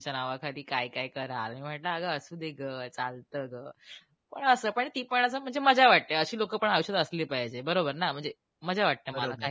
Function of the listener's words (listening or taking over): taking over